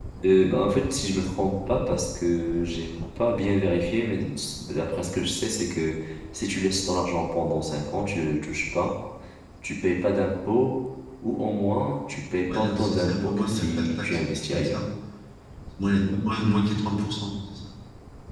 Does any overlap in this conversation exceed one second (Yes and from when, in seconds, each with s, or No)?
Yes, from 12.5 s